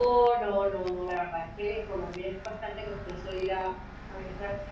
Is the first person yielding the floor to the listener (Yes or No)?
No